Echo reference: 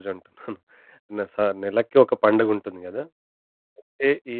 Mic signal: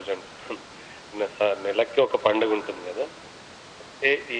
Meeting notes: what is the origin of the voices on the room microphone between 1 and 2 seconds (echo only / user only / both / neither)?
echo only